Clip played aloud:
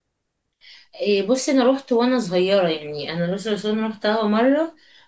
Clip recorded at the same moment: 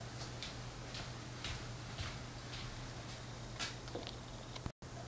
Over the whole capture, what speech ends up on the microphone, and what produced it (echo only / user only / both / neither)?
neither